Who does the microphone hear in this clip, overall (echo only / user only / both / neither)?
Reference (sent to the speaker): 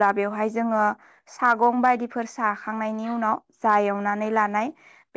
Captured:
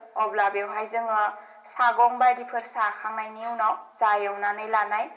echo only